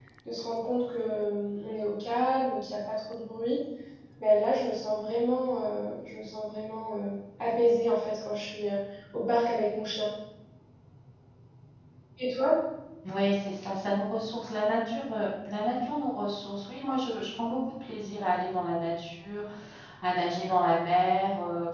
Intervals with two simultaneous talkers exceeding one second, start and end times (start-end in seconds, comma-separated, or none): none